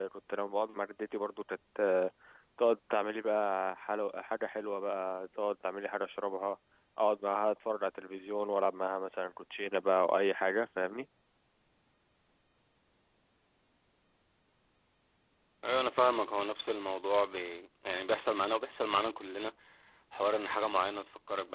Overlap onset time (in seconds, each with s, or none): none